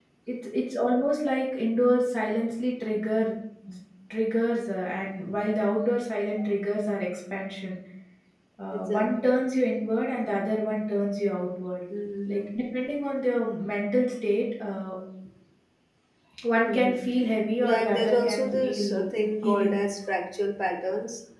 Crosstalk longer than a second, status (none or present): present